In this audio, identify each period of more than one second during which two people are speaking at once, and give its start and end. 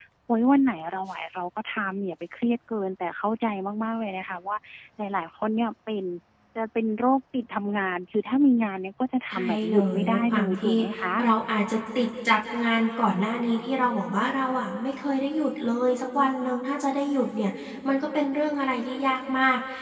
9.3-10.7

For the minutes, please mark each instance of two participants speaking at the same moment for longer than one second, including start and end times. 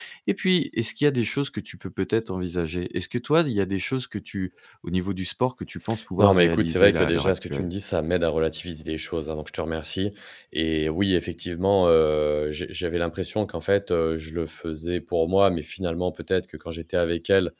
6.2-7.7

